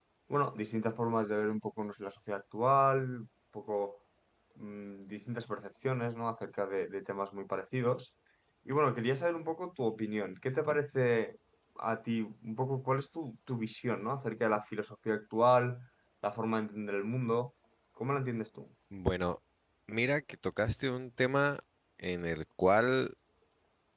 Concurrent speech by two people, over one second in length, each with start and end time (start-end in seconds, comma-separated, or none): none